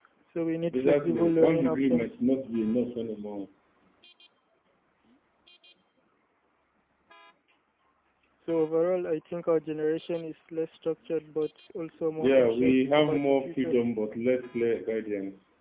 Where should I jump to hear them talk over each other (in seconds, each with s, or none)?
0.7 s